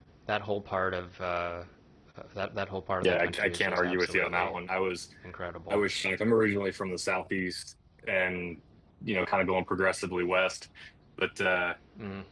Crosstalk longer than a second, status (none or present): present